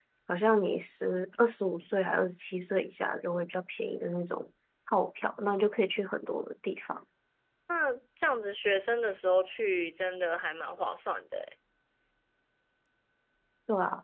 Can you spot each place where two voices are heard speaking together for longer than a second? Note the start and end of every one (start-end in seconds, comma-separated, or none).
none